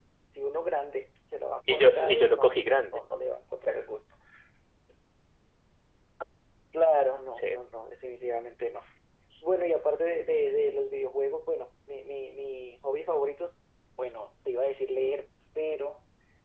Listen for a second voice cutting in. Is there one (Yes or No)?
Yes